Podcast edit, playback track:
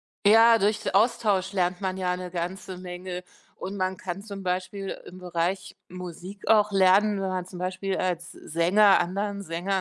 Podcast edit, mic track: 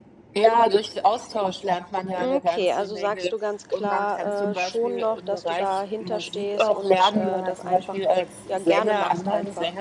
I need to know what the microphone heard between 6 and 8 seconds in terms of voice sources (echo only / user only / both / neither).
both